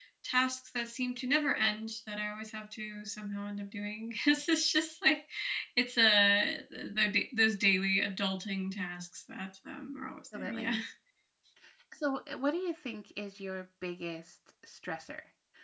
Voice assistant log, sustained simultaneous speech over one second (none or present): none